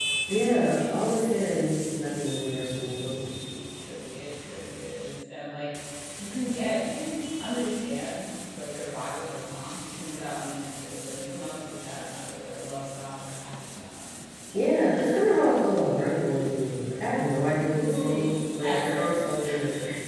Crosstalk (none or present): present